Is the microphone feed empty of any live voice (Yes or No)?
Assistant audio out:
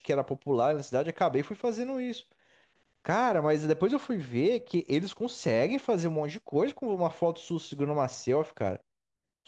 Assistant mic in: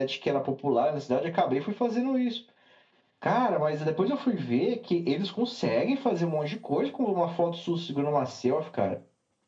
Yes